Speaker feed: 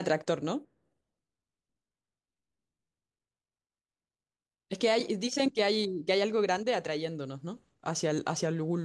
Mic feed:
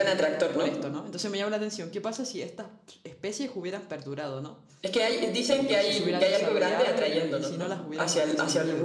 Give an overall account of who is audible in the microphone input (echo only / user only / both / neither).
both